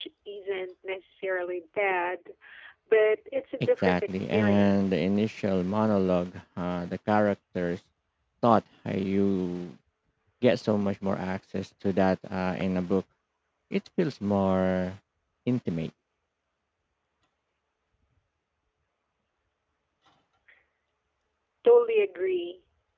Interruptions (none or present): present